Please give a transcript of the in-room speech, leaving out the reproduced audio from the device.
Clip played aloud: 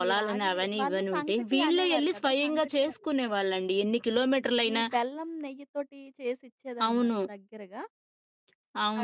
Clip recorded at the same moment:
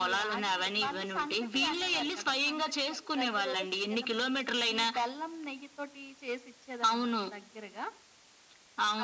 ప్రతిరోజు తినము.

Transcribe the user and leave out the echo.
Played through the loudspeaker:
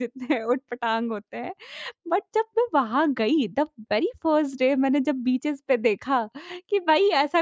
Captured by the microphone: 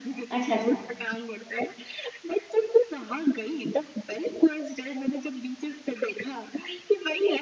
अच्छा, अच्छा।

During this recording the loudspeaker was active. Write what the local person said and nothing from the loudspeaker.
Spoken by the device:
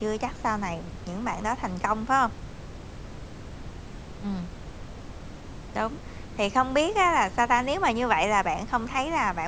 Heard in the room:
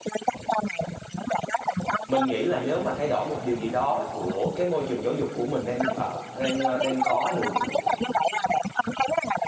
Mình nghĩ là nếu mà thay đổi một điều gì đó của cái môi trường giáo dục của mình đang, ờ, đang, ơ, đang có được

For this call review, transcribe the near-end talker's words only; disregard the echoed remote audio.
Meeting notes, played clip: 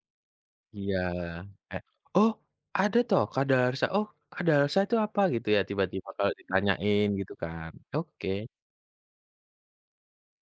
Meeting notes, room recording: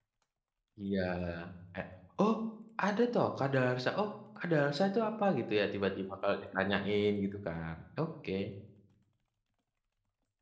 none

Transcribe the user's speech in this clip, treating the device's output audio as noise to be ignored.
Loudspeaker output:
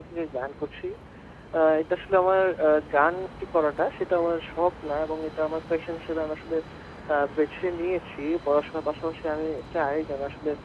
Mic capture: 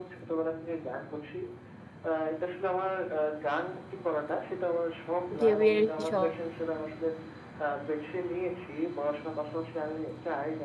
ঢেউয়ের শব্দ।

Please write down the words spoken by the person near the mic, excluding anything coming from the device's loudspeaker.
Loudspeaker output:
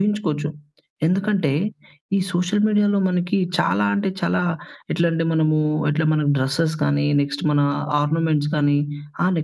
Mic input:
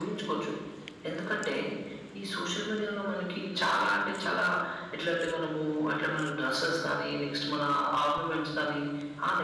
none

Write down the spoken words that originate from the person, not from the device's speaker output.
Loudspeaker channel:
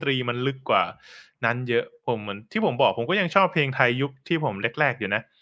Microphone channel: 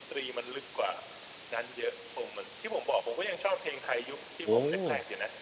โอ้โฮ!

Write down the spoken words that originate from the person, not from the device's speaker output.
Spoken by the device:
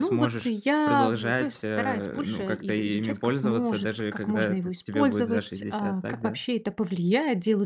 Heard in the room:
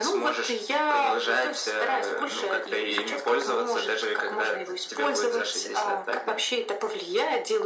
none

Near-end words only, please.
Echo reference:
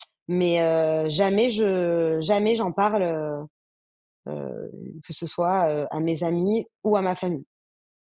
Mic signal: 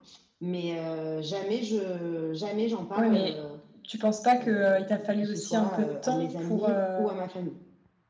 Ouais mais tu penses pas que, heu, il t'a fallu aussi un peu de temps pour, heu

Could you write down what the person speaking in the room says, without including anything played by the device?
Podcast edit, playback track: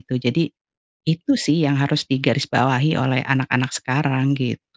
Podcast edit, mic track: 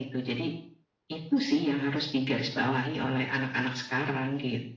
none

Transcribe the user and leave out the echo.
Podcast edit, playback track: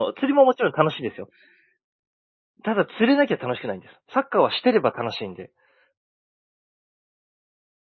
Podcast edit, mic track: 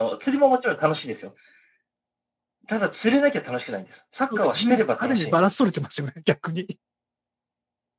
そうですね。ある意味バランス取れてますよね、逆に。い

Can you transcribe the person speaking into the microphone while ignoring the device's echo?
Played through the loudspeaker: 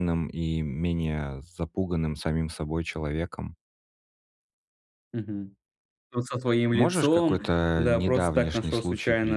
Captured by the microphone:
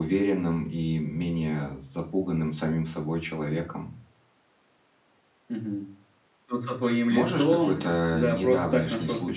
none

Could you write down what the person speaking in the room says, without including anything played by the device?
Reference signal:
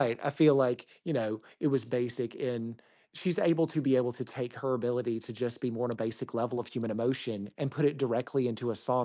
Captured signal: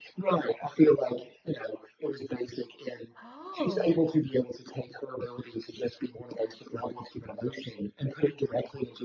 Oh.

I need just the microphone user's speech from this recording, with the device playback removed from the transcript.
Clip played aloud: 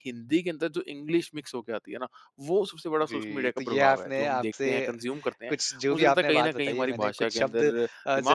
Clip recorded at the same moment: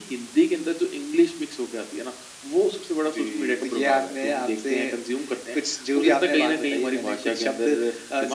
none

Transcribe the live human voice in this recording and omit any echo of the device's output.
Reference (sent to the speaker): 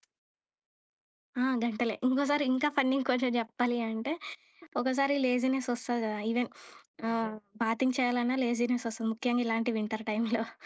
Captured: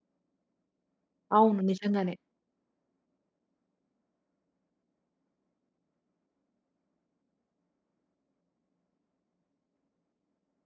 అవును నిజంగానే.

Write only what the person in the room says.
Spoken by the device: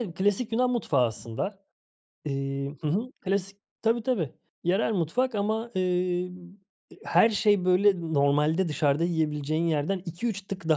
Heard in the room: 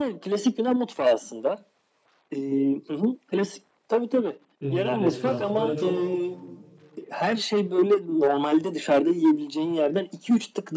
eee, restoran. Böyle çok

